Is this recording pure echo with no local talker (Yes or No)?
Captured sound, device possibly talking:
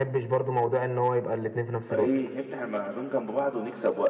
No